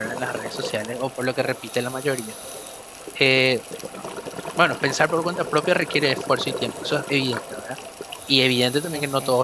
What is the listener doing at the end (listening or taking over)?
listening